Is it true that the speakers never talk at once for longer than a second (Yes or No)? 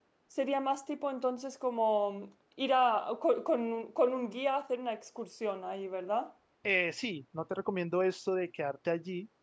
Yes